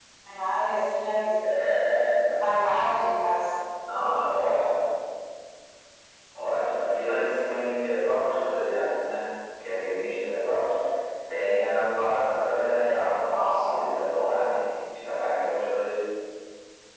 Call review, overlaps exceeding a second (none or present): none